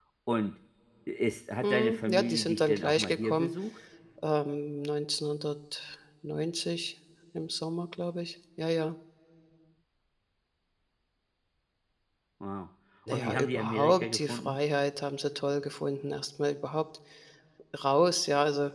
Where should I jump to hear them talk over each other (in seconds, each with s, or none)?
1.6 s